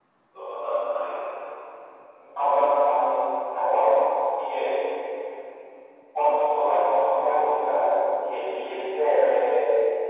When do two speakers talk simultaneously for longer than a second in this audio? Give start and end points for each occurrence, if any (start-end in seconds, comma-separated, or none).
none